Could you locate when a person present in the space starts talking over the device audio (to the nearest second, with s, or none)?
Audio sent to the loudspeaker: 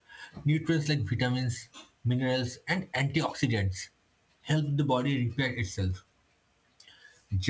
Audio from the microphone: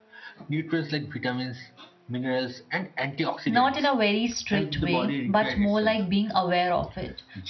3 s